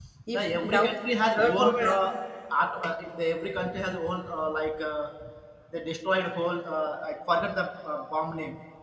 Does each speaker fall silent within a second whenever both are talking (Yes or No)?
No